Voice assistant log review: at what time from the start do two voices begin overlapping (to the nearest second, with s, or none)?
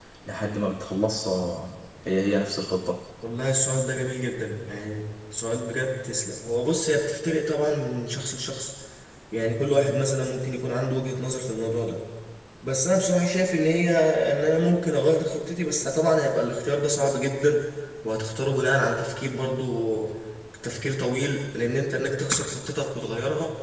none